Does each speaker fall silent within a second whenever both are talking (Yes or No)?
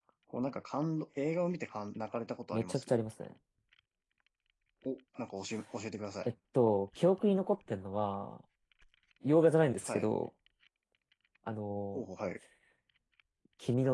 Yes